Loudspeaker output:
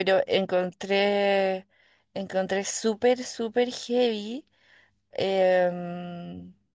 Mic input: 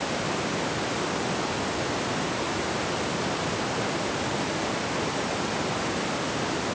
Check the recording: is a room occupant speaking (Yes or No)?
No